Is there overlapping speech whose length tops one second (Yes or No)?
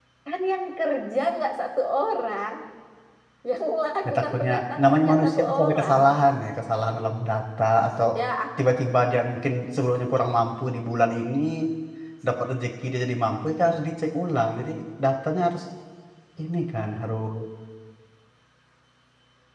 Yes